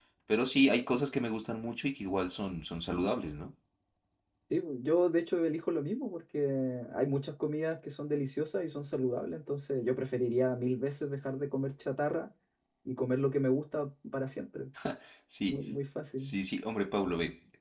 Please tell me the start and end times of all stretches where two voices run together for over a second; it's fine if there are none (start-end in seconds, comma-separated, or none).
none